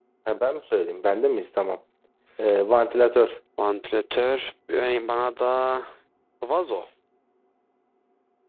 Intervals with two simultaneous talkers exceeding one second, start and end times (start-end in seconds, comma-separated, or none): none